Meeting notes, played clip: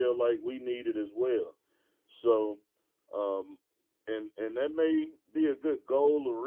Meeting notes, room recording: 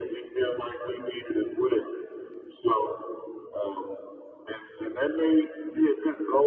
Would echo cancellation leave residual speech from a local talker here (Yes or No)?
No